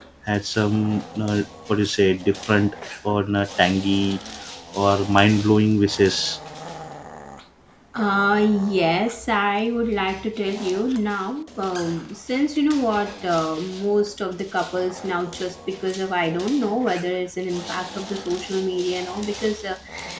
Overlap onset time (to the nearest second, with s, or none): none